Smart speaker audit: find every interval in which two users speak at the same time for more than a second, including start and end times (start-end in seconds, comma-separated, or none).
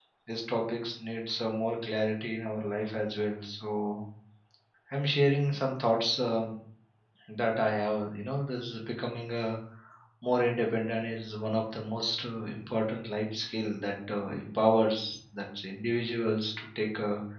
none